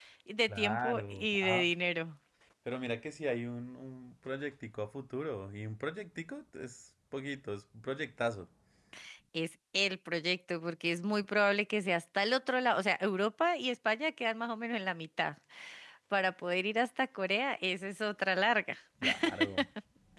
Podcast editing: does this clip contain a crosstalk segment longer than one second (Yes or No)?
Yes